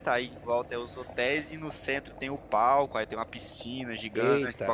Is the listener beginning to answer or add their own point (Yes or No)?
No